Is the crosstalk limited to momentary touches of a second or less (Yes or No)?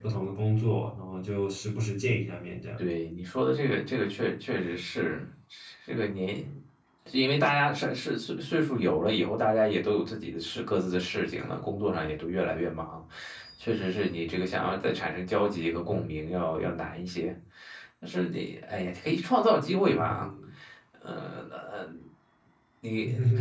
Yes